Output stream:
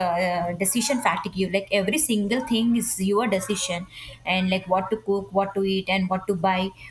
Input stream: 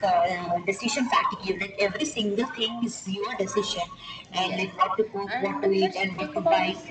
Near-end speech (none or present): present